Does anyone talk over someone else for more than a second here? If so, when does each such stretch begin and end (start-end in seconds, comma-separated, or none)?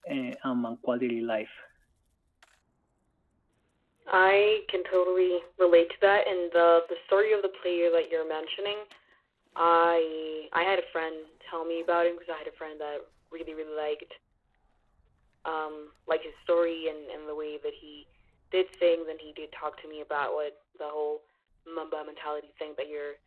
none